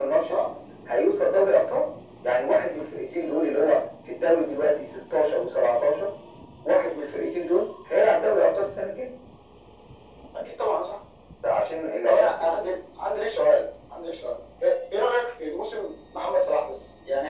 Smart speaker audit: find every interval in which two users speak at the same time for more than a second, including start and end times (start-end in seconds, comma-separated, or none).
none